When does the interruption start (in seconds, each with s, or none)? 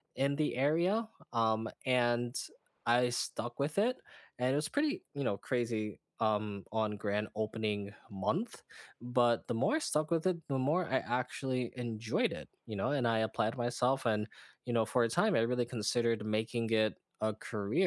none